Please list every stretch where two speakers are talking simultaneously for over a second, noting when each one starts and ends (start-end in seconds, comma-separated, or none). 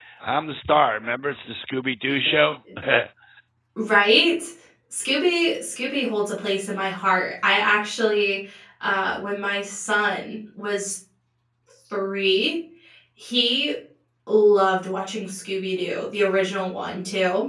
none